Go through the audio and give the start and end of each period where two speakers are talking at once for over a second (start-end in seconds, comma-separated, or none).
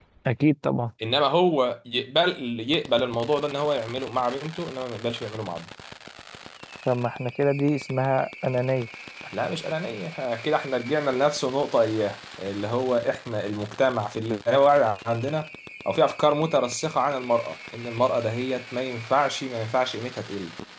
none